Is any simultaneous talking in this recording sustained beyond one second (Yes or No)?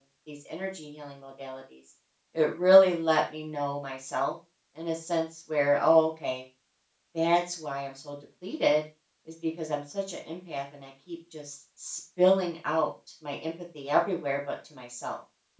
No